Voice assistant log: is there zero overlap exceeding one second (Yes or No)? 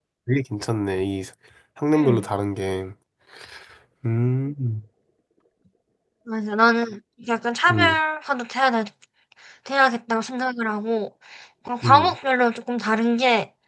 Yes